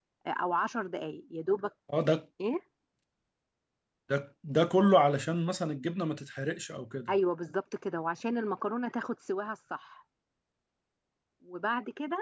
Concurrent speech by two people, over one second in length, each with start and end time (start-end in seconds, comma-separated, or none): none